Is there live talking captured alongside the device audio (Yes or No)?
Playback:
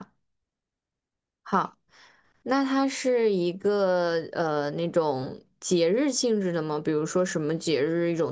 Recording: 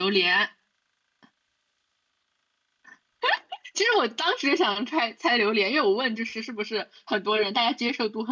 Yes